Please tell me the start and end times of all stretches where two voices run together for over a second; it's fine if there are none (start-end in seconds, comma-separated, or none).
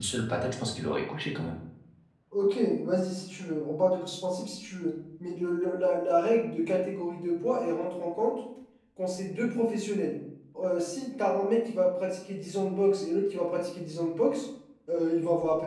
none